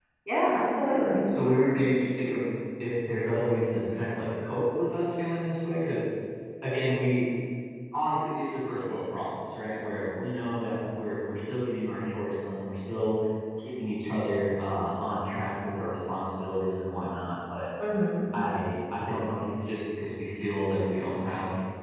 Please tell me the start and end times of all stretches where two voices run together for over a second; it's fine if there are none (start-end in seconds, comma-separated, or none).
none